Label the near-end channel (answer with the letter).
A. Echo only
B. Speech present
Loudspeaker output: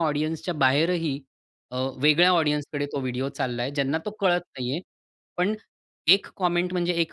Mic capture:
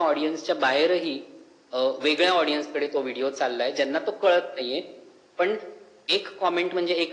A